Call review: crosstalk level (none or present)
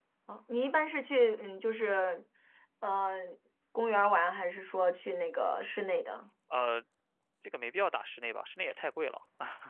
none